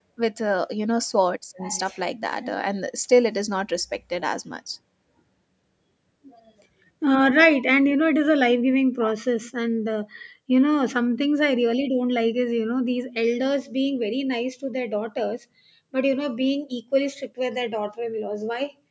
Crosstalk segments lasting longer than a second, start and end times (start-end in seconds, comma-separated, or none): none